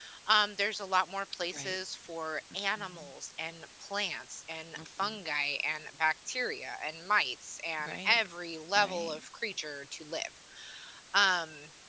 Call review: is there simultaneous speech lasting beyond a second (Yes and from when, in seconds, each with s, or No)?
No